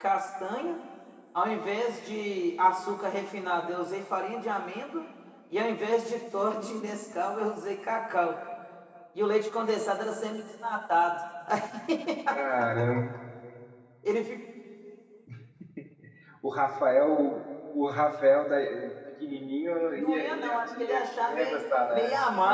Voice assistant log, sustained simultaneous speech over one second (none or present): present